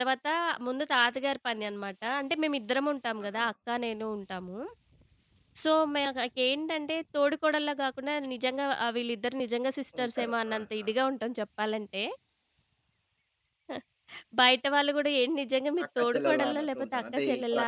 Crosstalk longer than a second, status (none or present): present